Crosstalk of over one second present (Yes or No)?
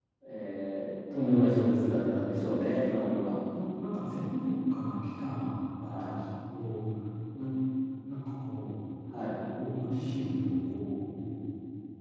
Yes